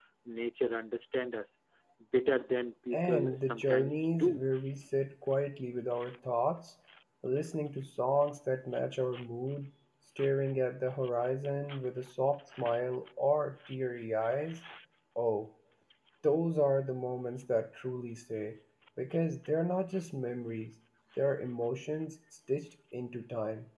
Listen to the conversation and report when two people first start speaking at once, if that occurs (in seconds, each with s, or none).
2.9 s